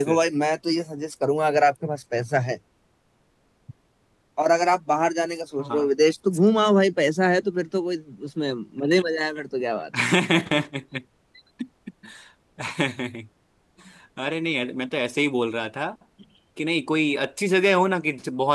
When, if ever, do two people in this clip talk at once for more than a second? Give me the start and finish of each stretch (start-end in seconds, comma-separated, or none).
none